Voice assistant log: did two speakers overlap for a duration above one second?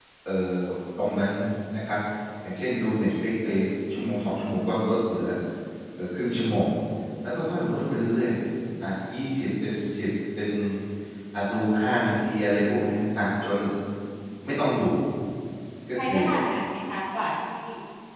No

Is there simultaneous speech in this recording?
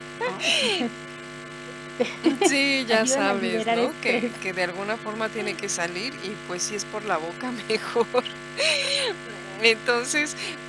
Yes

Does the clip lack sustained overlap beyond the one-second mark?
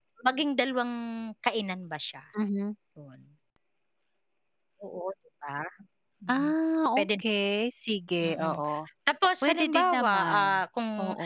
No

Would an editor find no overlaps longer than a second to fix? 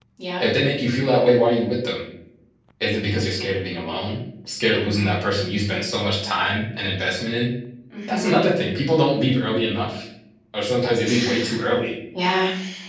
Yes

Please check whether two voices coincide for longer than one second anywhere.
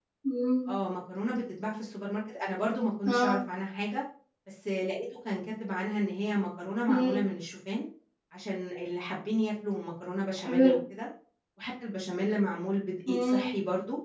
No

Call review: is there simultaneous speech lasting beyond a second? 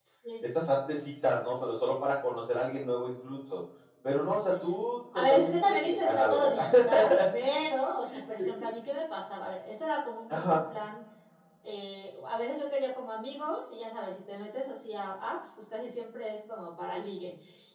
Yes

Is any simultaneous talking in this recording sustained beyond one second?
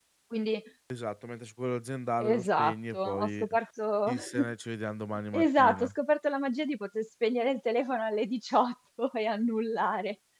Yes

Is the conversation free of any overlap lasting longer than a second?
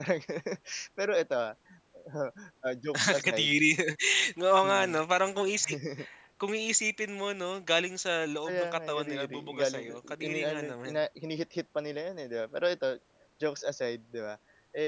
No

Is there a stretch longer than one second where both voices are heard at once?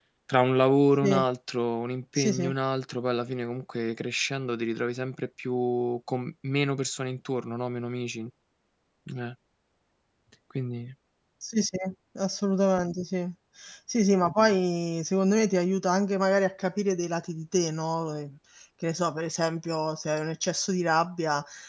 No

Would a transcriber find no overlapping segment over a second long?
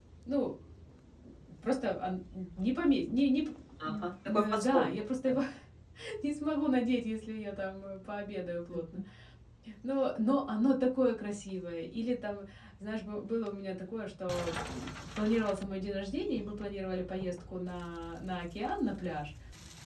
No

